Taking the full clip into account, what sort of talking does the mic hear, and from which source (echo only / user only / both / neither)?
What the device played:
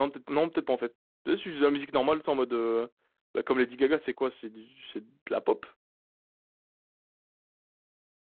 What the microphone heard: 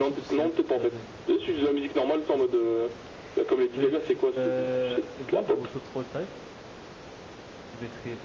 both